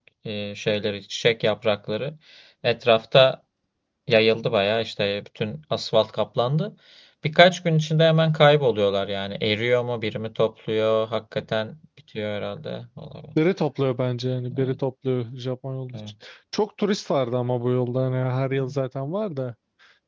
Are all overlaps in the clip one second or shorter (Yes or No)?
Yes